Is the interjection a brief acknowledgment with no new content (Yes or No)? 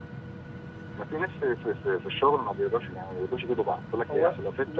No